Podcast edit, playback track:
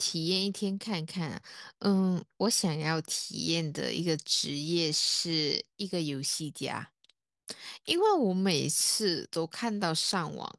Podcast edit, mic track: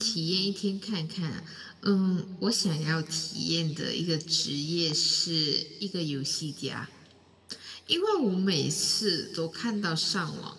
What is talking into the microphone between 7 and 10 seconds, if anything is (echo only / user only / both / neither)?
echo only